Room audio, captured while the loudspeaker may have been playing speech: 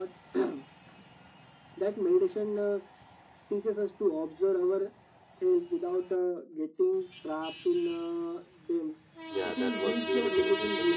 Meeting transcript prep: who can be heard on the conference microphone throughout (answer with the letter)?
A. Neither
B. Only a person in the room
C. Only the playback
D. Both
D